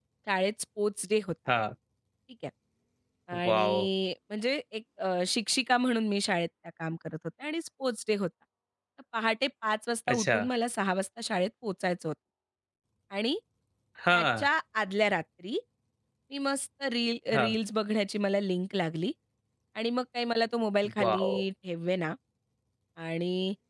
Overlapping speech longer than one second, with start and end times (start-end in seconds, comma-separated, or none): none